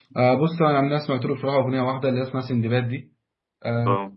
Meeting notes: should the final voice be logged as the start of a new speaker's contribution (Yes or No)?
No